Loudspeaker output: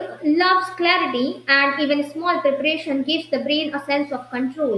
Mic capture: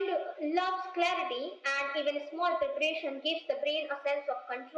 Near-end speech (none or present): none